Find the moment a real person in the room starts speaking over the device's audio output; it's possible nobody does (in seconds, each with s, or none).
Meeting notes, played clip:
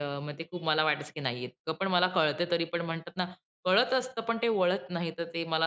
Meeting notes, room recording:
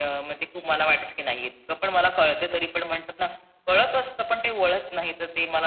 none